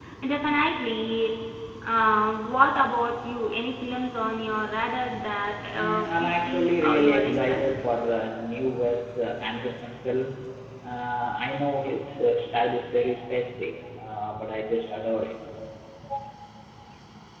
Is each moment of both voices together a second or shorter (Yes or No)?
No